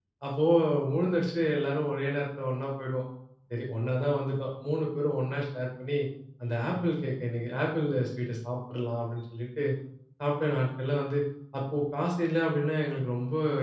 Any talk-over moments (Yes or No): No